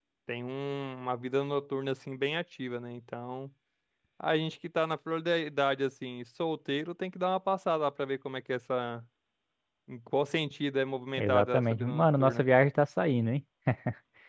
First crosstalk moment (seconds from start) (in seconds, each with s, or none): 11.2 s